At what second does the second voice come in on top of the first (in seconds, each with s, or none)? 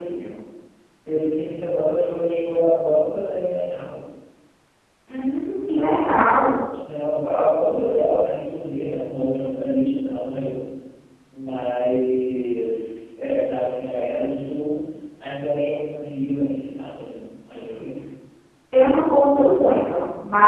none